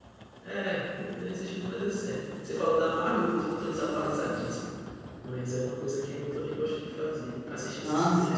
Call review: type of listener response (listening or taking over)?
taking over